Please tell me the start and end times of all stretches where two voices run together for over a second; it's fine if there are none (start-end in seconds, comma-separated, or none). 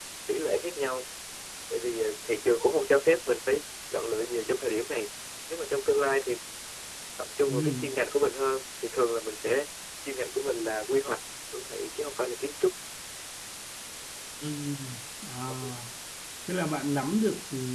none